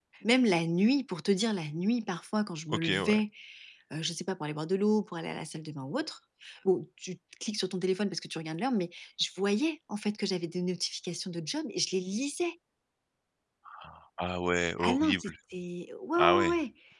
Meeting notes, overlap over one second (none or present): none